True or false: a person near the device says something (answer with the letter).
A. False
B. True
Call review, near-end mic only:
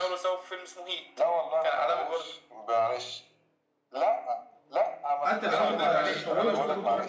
B